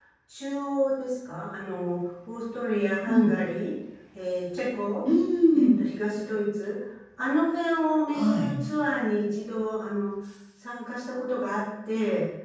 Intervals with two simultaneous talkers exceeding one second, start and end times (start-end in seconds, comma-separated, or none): none